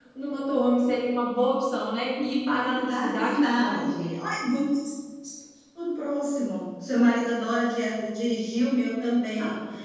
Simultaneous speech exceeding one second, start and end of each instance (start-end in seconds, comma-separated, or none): 2.5-4.0